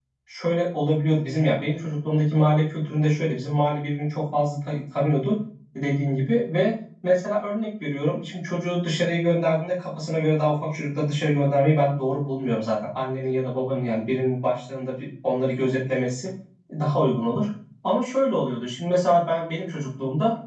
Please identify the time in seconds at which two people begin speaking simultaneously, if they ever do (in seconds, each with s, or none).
none